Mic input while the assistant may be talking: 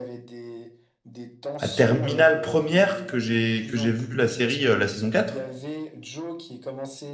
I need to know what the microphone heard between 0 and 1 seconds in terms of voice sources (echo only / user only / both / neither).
echo only